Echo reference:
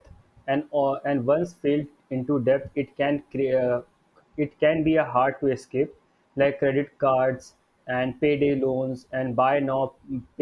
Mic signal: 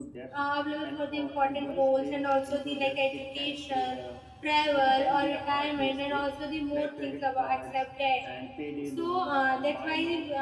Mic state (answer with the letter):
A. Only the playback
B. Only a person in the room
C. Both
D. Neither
C